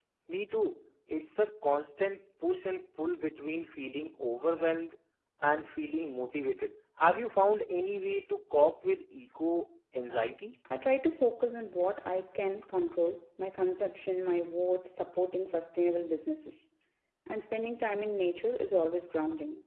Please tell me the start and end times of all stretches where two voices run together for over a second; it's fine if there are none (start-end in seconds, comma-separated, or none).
none